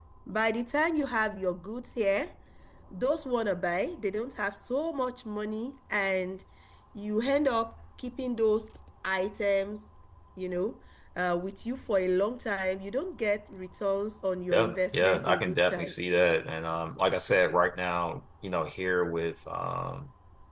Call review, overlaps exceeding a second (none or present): present